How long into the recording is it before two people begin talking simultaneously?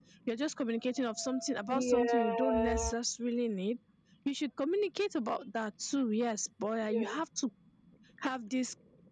2 s

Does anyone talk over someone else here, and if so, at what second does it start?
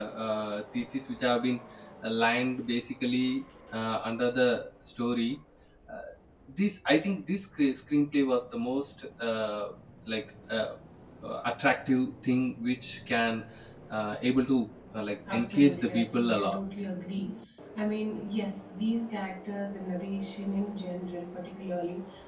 15 s

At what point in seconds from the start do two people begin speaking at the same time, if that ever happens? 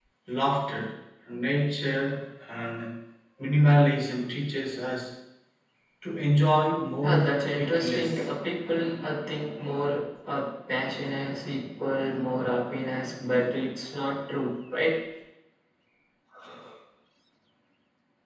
7 s

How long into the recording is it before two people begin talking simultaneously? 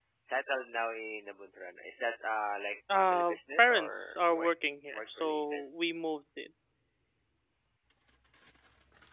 3 s

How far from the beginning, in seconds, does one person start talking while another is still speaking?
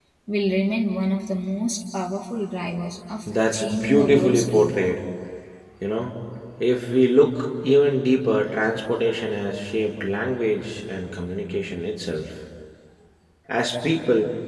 3 s

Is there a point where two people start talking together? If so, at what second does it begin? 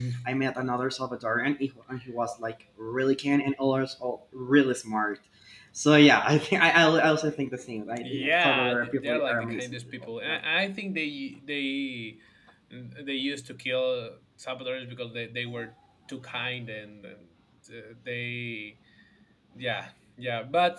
8 s

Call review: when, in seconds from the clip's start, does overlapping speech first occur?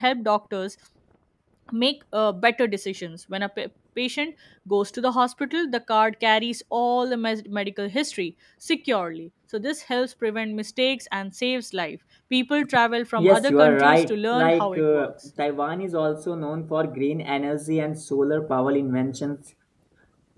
13 s

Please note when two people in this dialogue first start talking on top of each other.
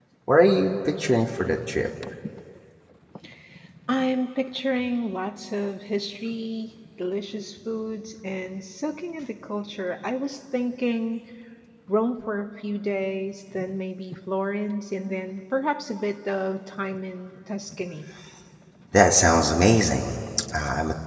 none

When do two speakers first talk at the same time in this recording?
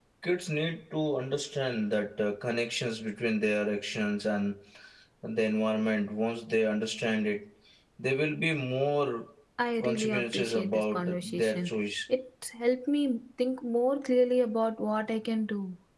10 s

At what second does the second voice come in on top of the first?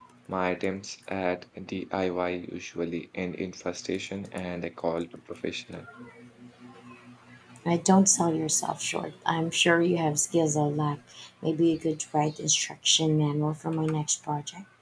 none

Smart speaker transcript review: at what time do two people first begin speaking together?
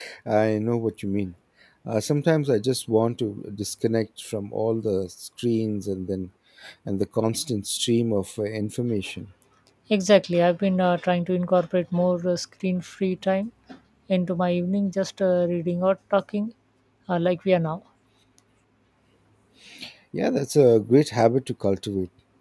none

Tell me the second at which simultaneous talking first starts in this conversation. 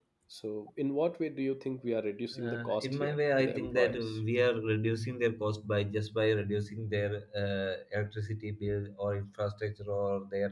2 s

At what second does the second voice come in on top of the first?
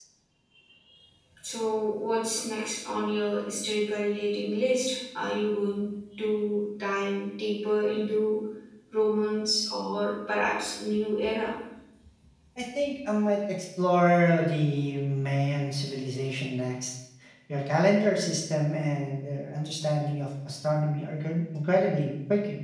none

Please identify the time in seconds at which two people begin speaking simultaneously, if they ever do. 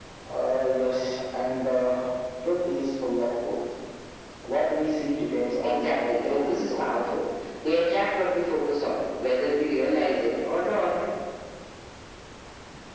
6 s

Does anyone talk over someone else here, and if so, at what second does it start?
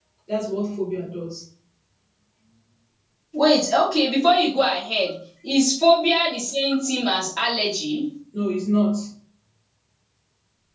none

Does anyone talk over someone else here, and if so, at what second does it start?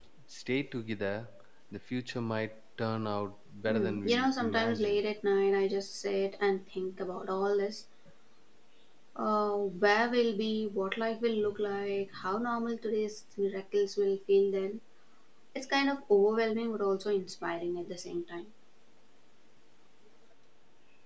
4 s

